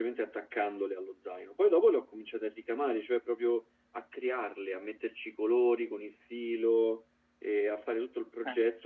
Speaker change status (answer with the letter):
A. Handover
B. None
B